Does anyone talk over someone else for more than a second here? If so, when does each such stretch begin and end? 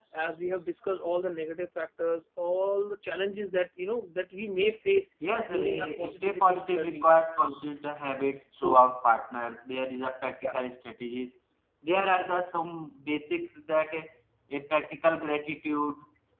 5.6-7.1

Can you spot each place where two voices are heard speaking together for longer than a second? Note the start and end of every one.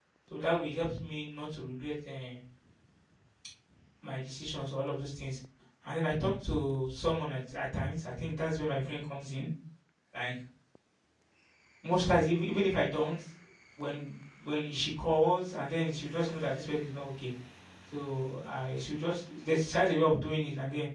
none

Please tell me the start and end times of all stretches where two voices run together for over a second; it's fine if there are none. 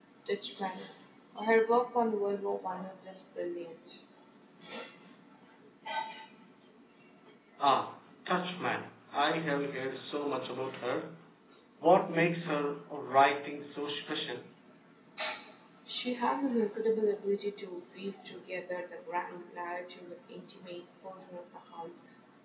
none

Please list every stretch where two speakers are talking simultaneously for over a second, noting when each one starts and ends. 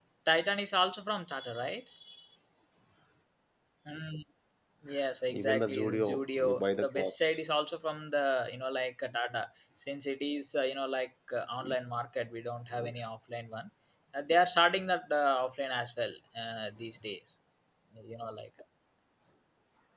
5.3-7.4

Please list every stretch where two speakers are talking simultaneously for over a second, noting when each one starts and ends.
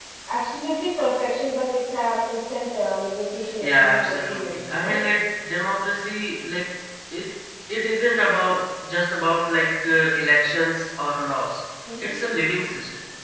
3.6-5.0

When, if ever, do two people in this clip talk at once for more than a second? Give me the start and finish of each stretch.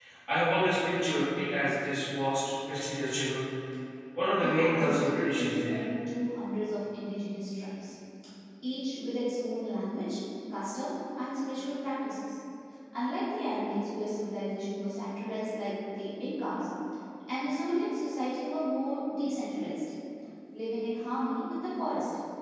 4.3-5.8

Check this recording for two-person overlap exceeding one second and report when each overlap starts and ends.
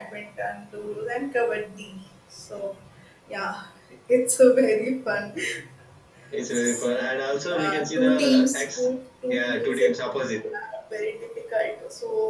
7.4-8.9

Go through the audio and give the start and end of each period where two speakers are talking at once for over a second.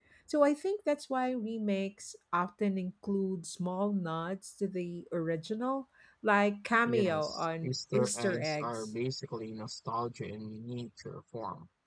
6.9-8.9

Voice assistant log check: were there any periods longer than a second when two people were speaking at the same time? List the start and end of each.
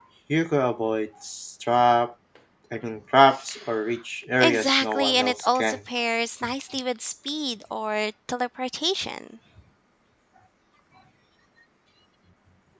4.4-5.8

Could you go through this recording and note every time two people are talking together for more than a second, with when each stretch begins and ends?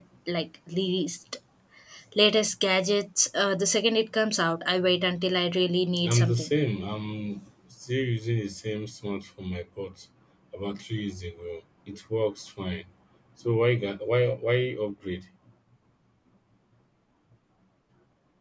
none

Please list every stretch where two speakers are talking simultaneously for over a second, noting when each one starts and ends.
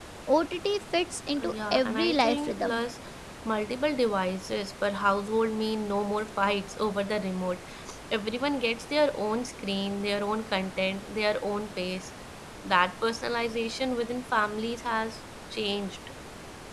1.4-2.8

